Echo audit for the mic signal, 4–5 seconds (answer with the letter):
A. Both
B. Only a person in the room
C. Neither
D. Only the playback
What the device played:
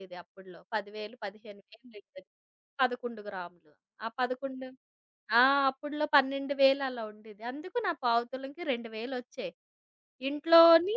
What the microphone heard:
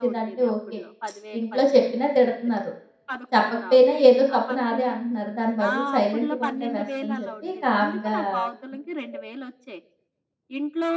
A